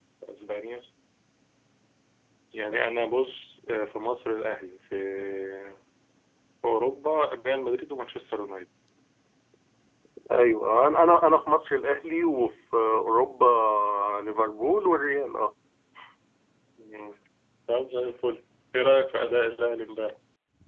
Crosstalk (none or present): none